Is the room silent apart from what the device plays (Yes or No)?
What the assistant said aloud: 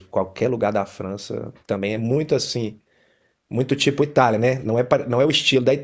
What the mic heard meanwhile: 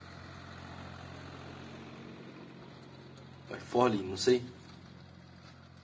No